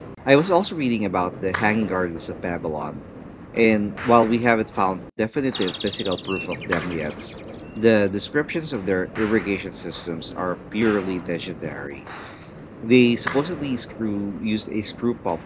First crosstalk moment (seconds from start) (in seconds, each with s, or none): none